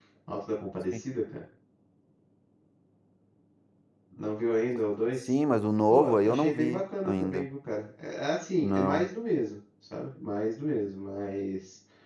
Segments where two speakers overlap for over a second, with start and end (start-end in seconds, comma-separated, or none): 5.9-7.4